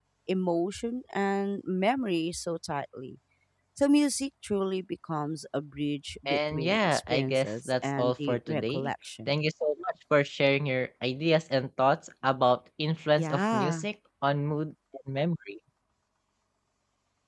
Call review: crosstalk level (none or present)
present